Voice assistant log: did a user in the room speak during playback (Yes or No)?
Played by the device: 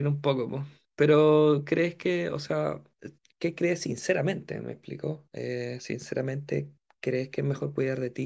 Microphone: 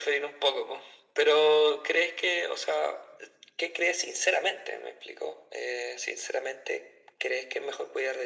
No